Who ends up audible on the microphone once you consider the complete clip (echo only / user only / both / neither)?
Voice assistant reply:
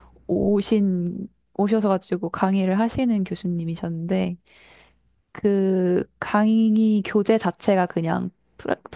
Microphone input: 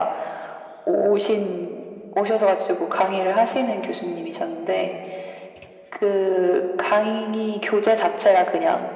echo only